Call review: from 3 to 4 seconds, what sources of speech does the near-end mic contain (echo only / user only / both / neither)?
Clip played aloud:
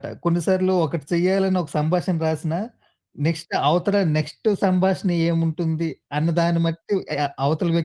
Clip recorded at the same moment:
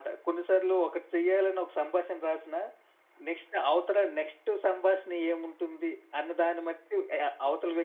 echo only